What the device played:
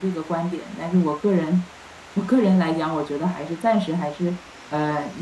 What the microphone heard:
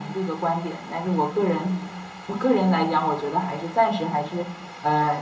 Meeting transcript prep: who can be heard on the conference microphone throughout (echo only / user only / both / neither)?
echo only